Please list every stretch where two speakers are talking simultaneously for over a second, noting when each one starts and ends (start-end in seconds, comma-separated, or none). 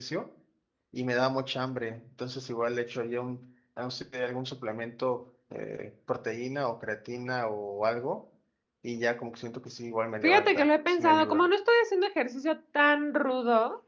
10.2-11.4